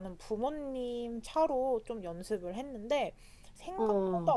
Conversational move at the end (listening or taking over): listening